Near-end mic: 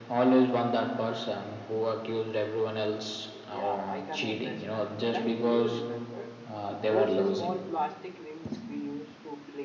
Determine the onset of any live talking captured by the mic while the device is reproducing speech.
3.5 s

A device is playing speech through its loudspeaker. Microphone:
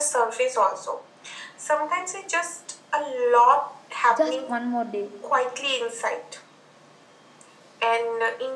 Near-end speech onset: 4.1 s

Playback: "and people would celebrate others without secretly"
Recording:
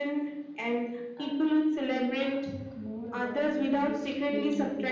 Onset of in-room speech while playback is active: 1.1 s

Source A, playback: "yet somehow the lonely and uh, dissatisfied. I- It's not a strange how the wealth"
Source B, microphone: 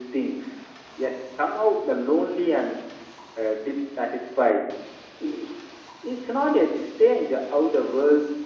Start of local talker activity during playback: none

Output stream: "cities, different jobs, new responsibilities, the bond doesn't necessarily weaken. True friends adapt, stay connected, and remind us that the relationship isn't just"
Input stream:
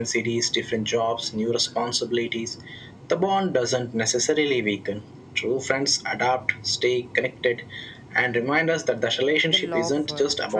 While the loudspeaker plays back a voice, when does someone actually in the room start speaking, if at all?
9.5 s

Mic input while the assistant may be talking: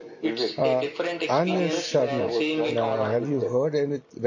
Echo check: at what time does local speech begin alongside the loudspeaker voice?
0.6 s

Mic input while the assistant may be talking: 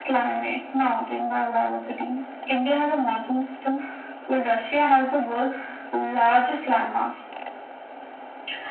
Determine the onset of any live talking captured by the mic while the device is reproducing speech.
none

